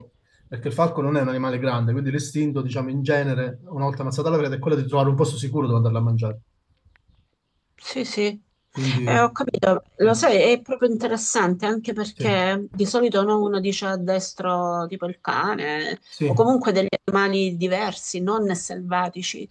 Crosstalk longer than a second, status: none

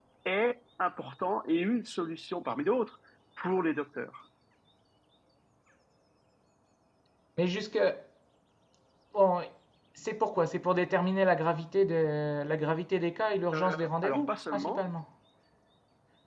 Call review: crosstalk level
present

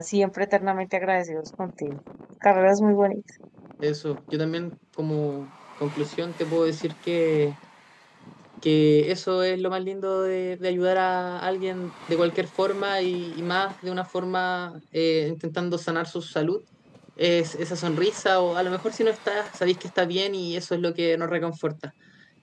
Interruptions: none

